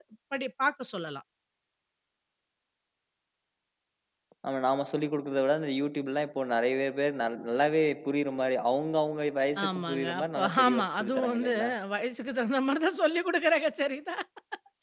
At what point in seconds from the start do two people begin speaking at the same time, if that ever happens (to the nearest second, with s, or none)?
10 s